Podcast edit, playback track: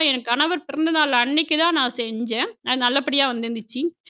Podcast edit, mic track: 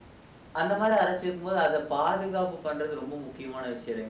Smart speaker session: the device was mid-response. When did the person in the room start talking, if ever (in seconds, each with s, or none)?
0.6 s